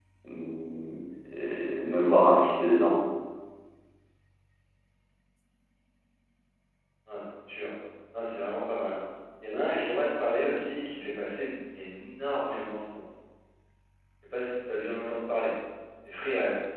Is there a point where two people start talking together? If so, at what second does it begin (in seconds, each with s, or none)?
none